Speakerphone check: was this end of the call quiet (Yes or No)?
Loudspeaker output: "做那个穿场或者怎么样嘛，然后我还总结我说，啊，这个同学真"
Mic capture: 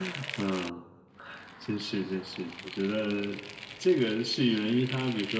No